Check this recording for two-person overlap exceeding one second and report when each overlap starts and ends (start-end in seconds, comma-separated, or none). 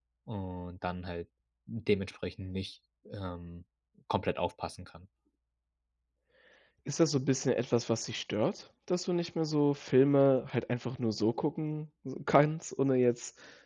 none